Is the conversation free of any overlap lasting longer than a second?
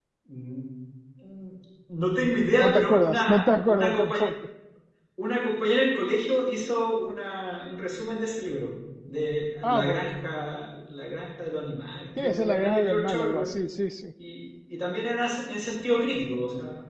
No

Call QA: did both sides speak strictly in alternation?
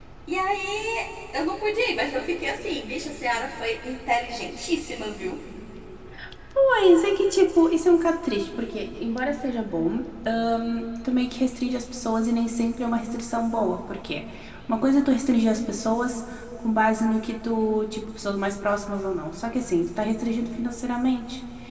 Yes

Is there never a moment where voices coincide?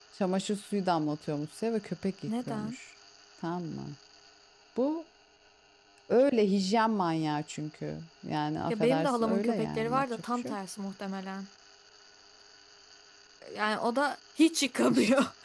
No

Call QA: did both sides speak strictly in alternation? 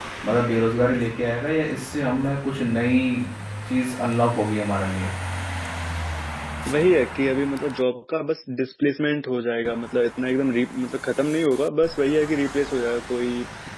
Yes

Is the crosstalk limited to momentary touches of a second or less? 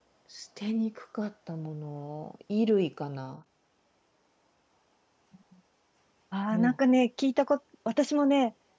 Yes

